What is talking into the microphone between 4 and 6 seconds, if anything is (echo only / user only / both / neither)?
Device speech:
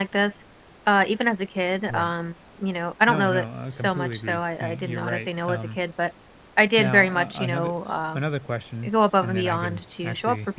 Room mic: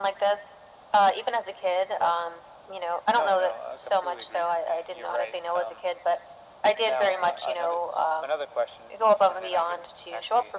echo only